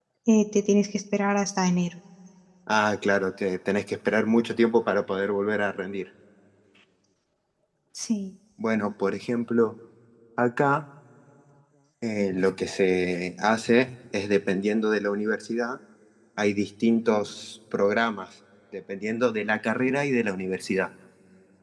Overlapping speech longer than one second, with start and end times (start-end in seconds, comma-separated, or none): none